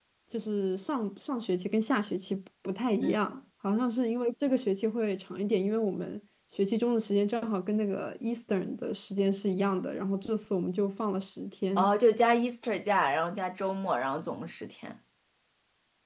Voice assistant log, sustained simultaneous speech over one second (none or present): none